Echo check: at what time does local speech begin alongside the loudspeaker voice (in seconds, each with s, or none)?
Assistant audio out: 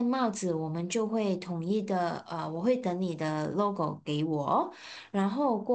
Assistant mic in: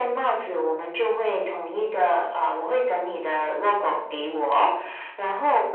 none